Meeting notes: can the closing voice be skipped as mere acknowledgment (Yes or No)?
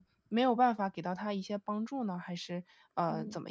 No